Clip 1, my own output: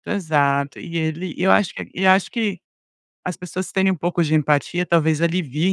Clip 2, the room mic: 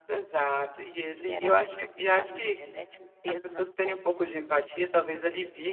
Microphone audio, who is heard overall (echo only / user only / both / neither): both